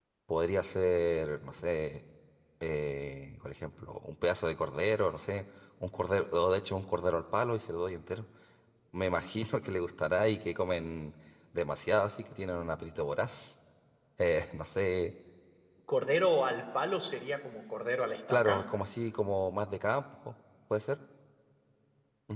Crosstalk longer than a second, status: none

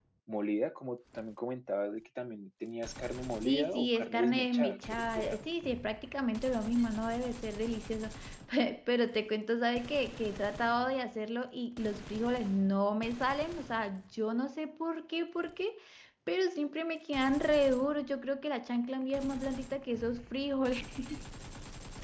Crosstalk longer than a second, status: present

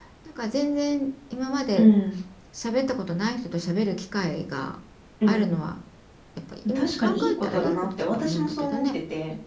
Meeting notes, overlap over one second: present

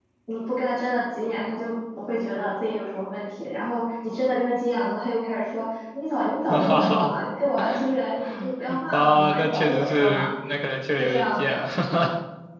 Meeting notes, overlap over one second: present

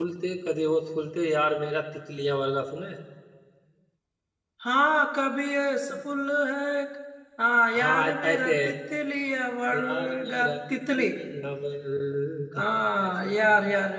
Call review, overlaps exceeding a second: present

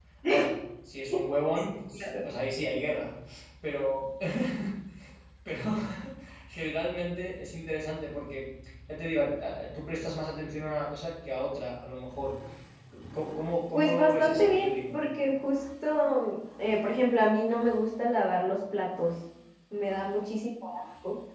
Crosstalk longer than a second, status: present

